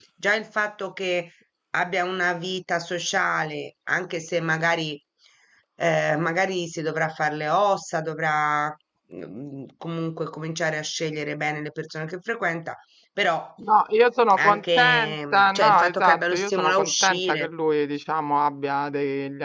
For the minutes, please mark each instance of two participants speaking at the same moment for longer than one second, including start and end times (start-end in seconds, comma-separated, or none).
14.4-17.5